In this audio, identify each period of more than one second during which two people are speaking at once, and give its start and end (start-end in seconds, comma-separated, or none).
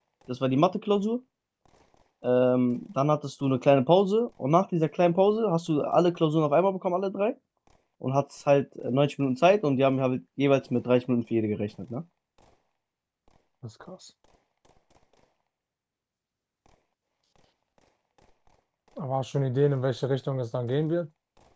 none